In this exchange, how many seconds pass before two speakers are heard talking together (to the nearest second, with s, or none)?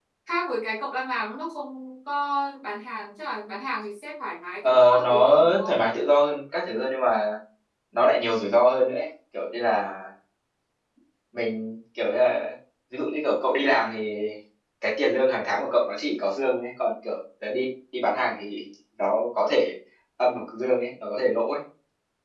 5 s